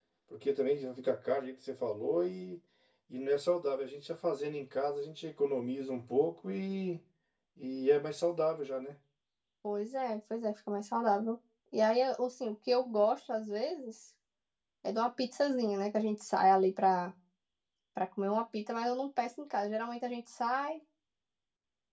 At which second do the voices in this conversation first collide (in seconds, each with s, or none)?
none